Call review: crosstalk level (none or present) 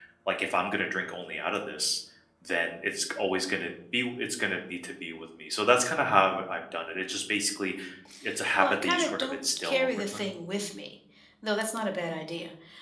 present